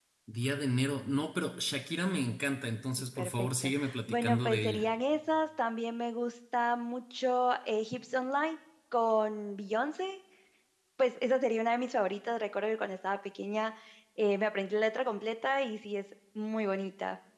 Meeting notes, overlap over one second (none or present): present